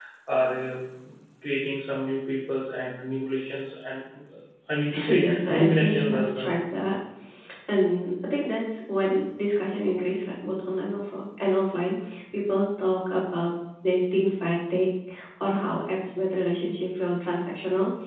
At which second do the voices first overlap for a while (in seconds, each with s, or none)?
4.9 s